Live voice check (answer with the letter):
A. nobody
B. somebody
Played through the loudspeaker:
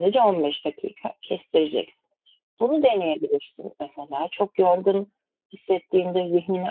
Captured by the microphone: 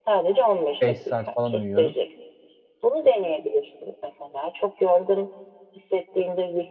B